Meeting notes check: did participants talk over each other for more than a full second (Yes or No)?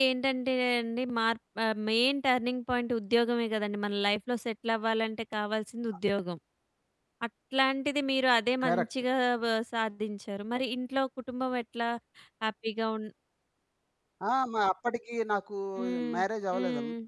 No